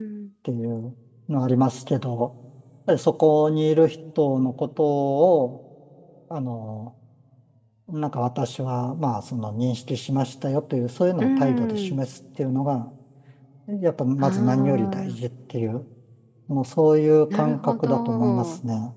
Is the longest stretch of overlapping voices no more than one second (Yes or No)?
No